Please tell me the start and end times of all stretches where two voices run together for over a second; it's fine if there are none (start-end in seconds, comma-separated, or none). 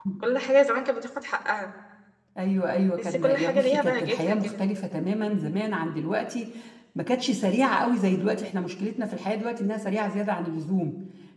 3.0-4.6